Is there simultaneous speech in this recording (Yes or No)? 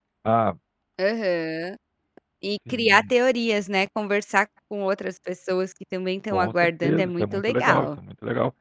Yes